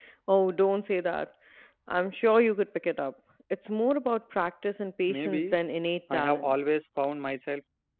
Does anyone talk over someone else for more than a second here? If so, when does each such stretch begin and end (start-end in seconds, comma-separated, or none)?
none